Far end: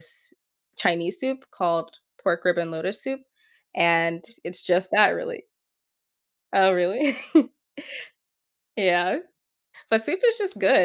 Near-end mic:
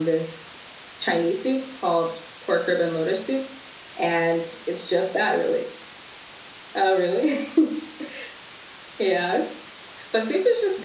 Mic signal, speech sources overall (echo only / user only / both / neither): echo only